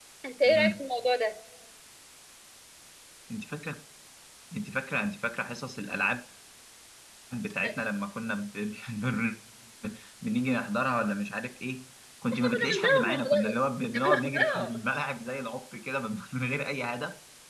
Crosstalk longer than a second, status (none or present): present